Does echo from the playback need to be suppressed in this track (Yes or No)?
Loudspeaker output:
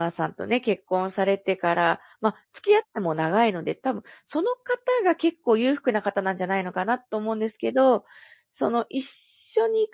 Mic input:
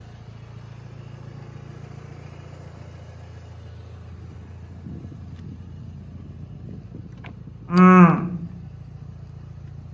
No